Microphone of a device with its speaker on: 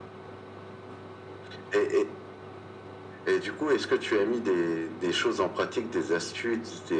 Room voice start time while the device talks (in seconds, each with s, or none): none